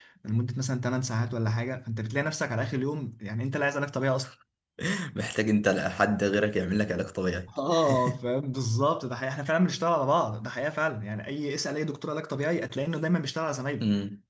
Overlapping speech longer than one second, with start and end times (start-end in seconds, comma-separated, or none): none